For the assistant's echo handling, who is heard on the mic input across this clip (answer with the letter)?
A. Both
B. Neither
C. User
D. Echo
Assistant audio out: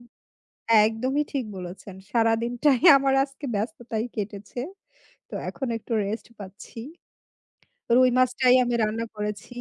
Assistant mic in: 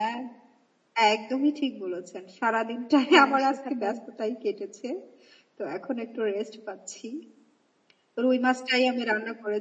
A